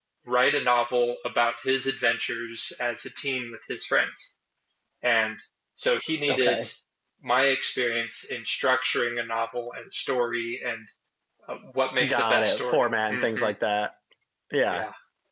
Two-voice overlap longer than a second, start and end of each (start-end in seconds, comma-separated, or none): 12.0-13.5